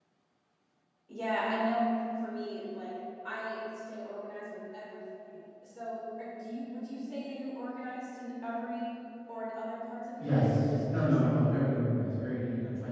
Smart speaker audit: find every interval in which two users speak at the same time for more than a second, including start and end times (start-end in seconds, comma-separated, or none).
10.2-11.6